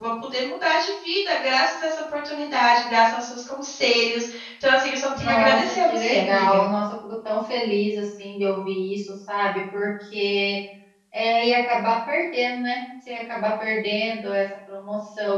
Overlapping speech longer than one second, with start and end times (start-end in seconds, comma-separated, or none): 5.2-6.6